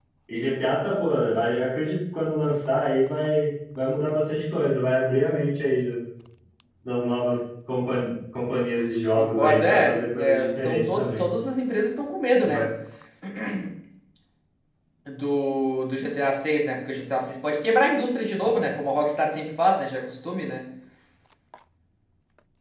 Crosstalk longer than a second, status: present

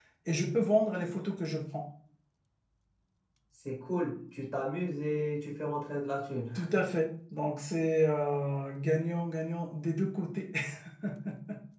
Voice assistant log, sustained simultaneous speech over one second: none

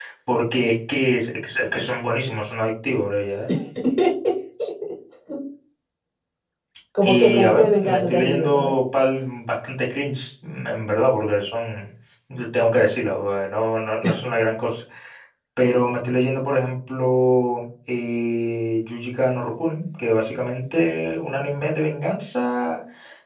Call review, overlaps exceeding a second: present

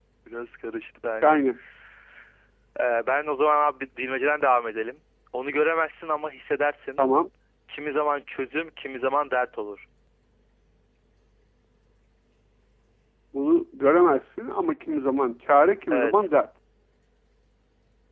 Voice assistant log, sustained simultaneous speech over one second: none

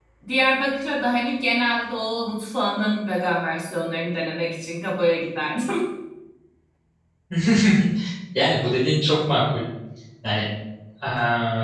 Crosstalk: none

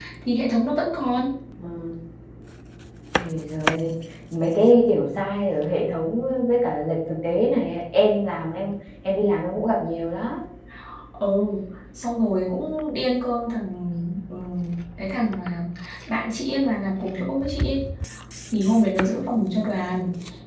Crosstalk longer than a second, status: none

